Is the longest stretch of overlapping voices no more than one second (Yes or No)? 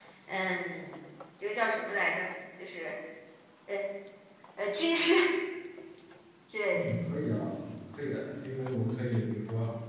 Yes